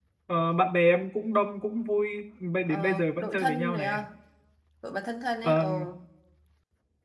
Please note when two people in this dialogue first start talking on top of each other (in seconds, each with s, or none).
2.7 s